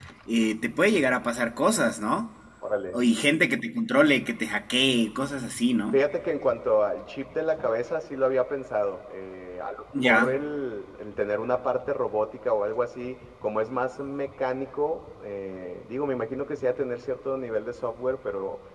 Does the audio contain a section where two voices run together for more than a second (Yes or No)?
No